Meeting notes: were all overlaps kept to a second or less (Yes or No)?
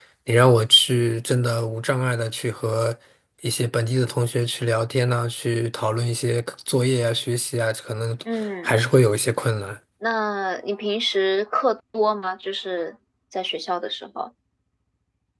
Yes